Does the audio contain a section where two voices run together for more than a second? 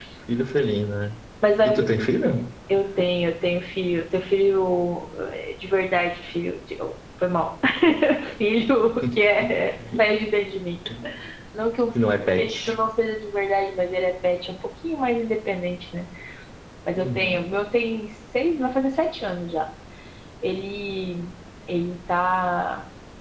No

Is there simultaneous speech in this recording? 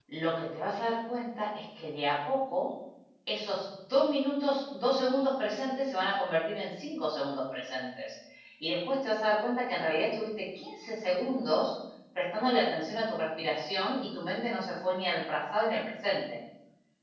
No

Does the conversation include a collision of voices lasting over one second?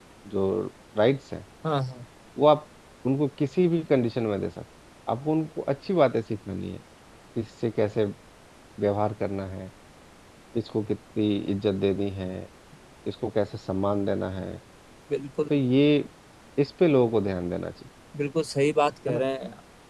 No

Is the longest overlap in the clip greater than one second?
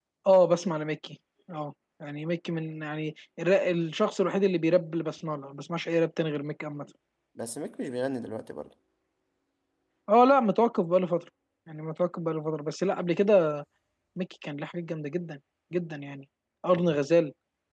No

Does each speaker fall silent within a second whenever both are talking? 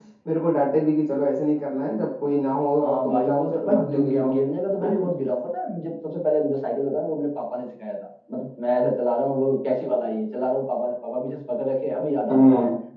No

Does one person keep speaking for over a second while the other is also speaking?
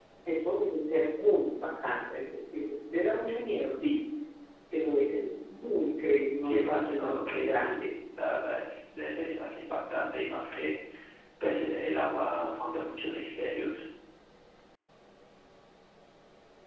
Yes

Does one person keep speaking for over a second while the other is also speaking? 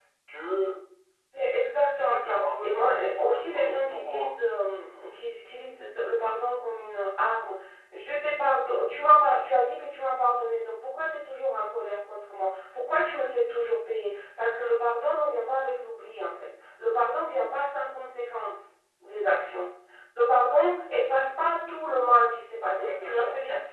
Yes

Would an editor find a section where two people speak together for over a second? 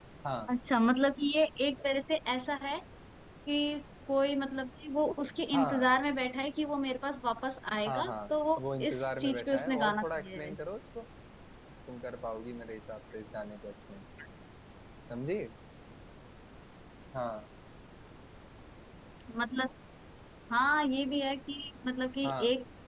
Yes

